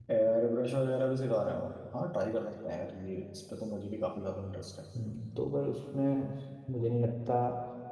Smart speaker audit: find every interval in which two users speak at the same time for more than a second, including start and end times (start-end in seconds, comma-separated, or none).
none